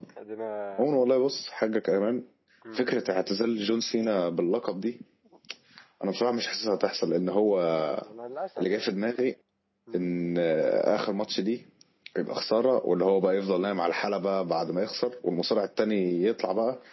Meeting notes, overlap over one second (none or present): none